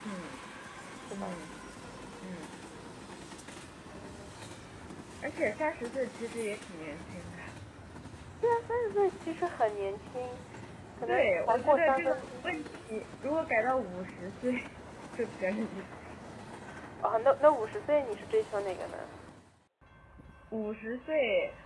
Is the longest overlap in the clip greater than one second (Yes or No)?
Yes